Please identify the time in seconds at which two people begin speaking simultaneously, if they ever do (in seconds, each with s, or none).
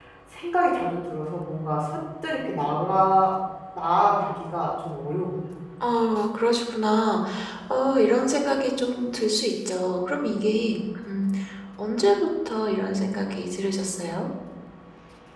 none